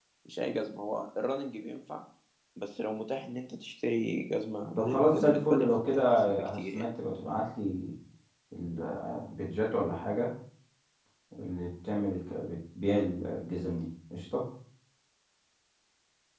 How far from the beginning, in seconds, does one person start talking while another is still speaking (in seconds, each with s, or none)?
4.8 s